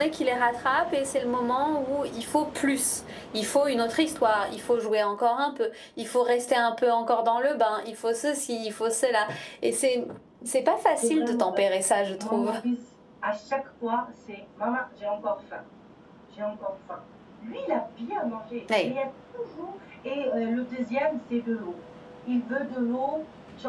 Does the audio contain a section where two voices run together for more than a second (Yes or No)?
Yes